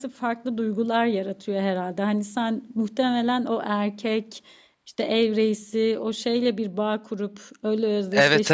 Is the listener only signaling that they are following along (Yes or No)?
No